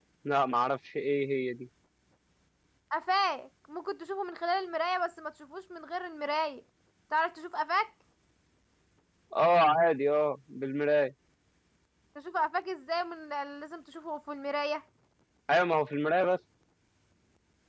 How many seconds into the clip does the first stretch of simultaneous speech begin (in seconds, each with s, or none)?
none